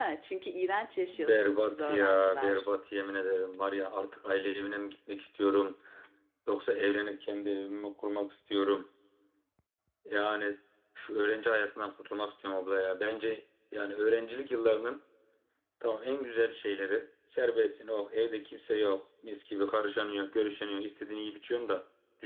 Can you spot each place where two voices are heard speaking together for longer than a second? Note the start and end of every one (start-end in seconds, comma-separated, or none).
1.1-2.7